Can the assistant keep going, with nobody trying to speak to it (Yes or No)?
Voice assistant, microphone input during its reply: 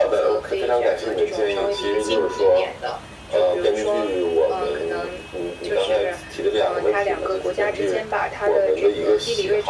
Yes